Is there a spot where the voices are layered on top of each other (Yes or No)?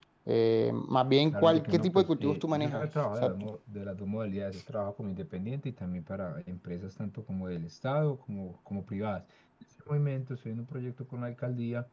Yes